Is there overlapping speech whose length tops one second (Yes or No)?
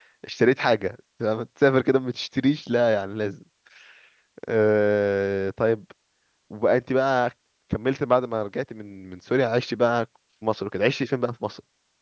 No